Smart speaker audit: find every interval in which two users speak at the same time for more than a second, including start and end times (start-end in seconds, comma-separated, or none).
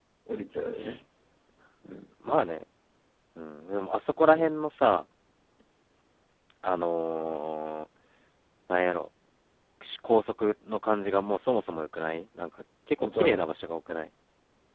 none